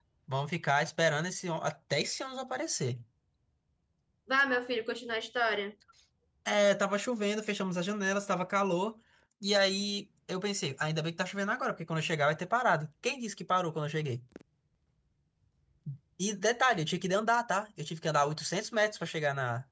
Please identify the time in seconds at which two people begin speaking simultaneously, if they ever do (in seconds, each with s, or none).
none